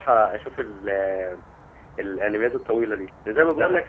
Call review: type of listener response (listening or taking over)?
listening